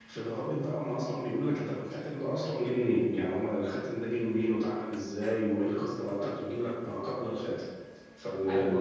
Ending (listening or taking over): taking over